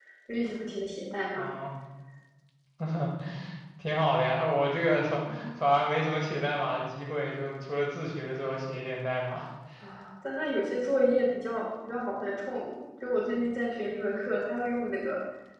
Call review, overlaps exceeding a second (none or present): none